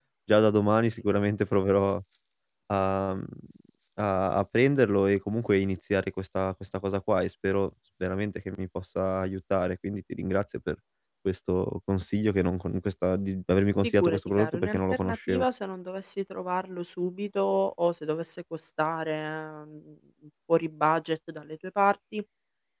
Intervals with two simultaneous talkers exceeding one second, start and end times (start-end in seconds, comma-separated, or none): 13.8-15.4